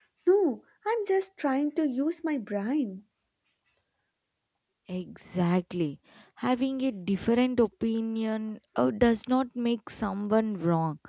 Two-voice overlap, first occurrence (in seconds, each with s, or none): none